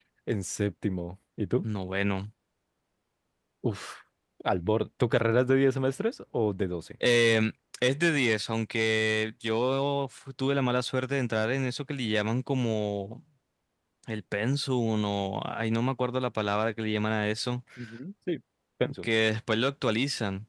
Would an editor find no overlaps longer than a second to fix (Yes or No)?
Yes